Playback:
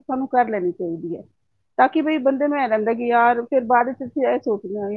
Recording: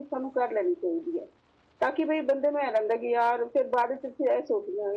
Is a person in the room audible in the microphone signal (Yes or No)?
No